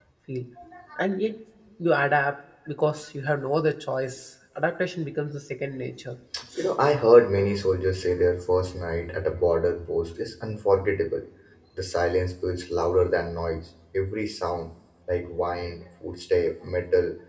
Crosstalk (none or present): none